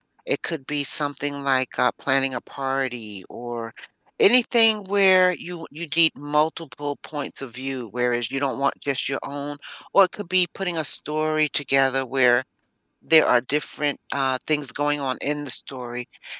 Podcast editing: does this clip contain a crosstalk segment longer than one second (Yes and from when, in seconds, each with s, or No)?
No